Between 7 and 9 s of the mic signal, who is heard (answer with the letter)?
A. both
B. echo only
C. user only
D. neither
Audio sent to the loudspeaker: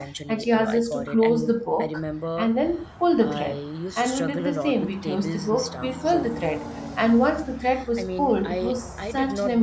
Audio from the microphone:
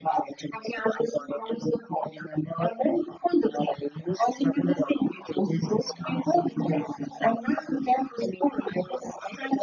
B